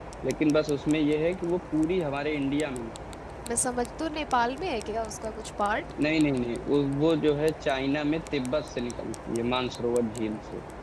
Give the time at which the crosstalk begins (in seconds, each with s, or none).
none